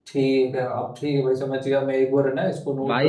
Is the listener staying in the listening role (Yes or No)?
No